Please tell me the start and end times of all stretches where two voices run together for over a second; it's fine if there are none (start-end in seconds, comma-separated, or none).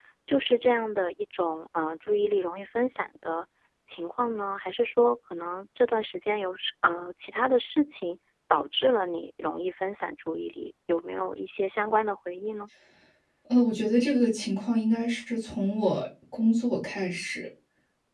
none